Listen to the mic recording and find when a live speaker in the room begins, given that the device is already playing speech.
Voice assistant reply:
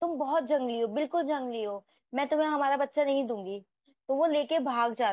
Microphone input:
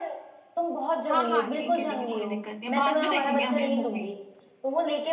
1.1 s

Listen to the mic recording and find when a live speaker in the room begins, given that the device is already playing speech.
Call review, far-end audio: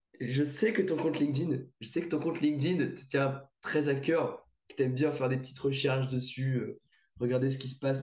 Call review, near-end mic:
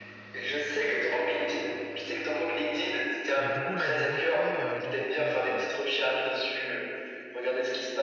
3.4 s

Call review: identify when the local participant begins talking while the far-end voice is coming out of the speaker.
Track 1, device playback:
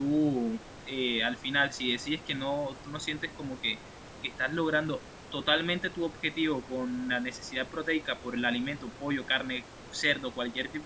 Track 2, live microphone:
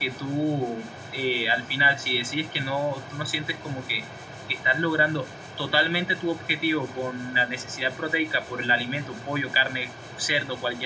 none

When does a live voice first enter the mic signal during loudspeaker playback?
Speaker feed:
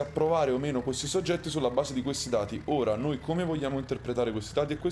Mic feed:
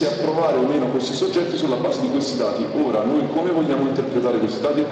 none

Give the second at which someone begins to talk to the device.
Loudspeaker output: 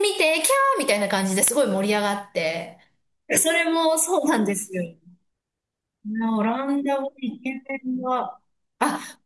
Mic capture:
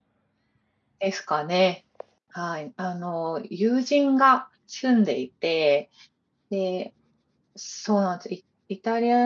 1.0 s

